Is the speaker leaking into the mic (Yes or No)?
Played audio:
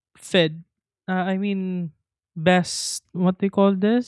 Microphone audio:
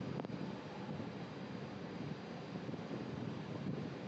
No